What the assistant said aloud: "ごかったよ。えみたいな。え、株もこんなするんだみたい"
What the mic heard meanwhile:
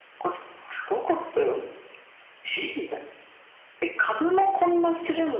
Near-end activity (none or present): none